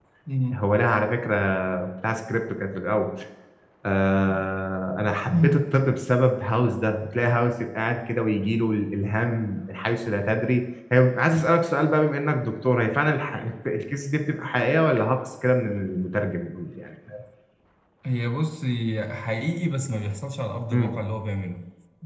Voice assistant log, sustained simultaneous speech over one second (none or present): none